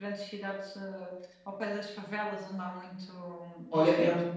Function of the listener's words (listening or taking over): taking over